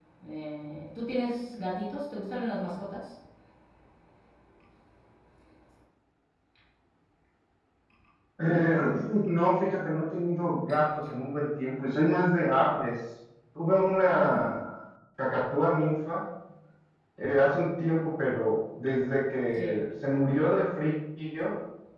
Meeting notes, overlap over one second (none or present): none